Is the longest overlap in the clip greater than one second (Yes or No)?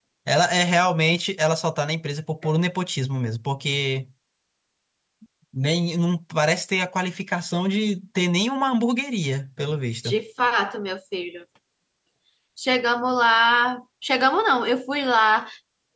No